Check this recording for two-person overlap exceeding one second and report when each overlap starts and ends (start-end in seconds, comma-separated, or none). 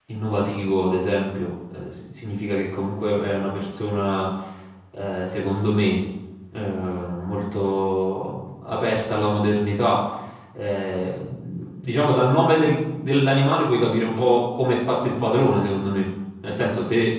none